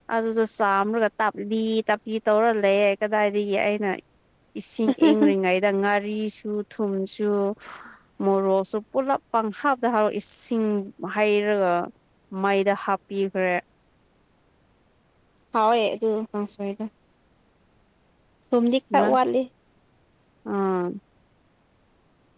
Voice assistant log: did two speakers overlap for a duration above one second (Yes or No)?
No